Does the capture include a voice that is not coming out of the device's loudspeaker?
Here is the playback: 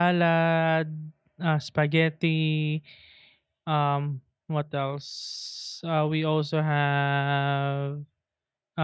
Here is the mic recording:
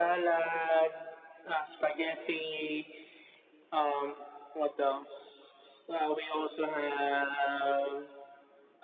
No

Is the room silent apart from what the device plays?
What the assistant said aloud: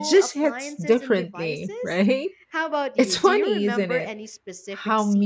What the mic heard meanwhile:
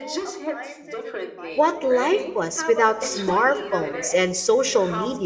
No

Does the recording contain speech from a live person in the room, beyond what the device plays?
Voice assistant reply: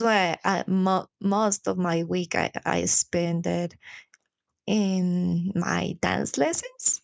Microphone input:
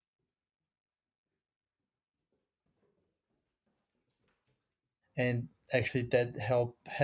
Yes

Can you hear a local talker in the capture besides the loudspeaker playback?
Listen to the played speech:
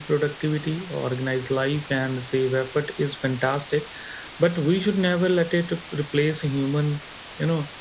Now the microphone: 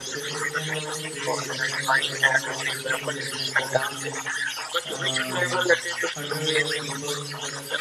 Yes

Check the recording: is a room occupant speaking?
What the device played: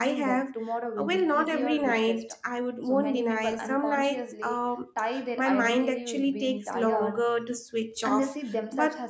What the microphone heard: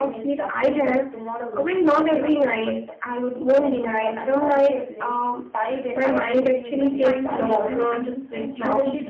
Yes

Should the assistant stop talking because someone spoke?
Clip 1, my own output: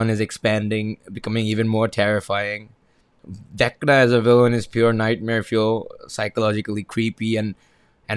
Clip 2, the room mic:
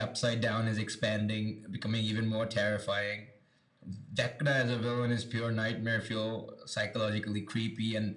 No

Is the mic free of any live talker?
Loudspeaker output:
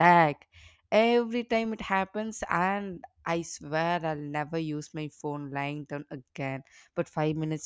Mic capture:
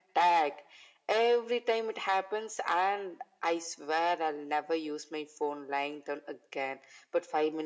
Yes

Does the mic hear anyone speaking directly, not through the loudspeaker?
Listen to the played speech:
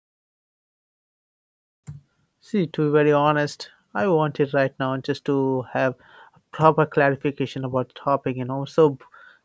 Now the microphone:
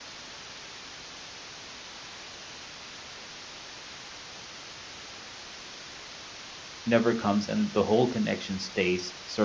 Yes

